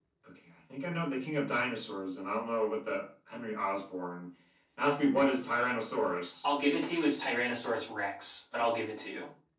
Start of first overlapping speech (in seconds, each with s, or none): none